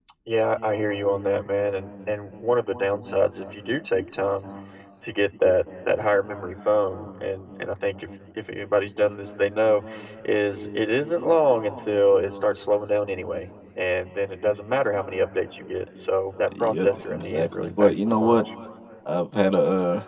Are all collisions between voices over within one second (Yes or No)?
No